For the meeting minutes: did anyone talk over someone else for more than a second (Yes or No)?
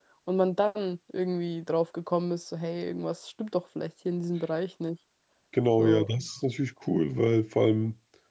No